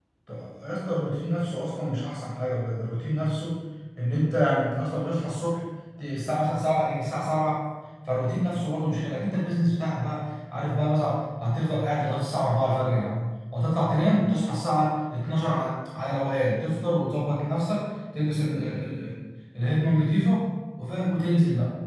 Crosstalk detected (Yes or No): No